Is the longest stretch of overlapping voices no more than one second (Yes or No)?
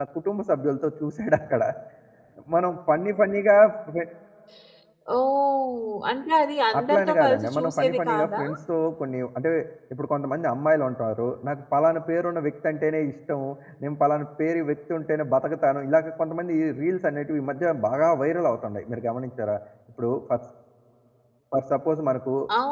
No